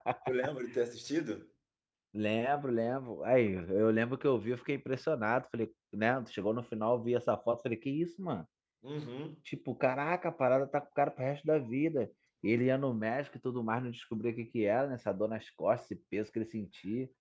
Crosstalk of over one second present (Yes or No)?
No